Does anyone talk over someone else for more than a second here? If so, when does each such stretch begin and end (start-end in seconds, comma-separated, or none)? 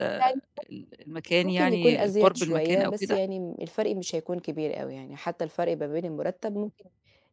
1.4-3.2